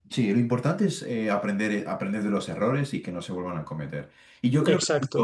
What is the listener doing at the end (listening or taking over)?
listening